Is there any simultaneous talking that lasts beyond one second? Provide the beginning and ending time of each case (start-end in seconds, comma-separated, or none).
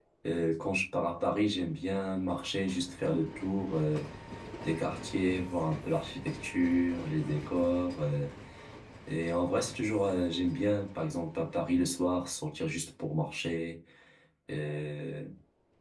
none